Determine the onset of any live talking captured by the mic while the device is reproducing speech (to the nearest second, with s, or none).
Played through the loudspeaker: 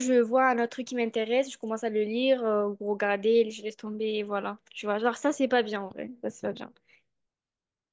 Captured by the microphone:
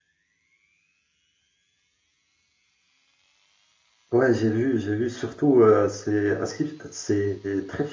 4 s